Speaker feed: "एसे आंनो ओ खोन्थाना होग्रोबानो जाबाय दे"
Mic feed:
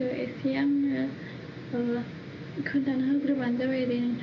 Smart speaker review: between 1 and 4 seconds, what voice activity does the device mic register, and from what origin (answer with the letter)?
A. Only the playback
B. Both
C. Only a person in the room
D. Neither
A